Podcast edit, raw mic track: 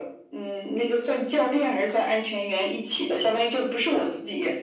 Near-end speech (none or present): none